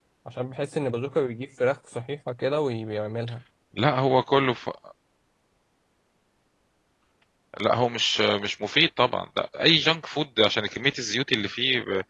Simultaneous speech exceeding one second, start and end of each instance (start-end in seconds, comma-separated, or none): none